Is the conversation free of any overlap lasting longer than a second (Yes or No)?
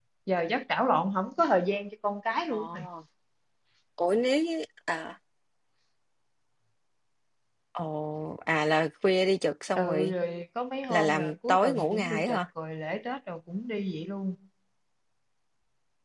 No